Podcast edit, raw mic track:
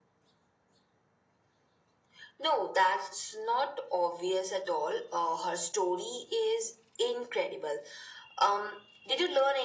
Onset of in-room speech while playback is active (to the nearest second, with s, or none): none